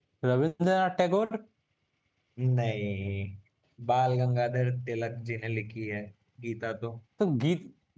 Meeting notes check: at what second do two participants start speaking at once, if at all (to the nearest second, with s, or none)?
none